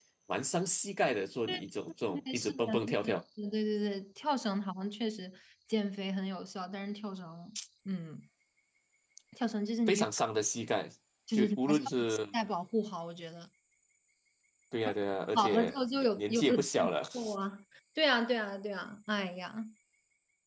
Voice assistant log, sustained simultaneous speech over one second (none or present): present